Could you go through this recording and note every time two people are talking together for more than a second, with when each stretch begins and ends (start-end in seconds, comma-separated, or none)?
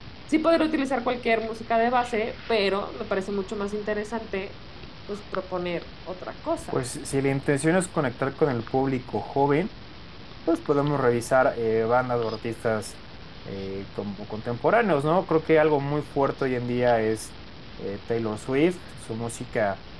none